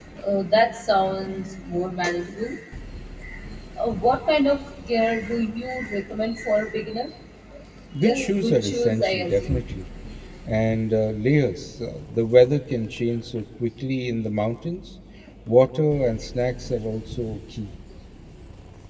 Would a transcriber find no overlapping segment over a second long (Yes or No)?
No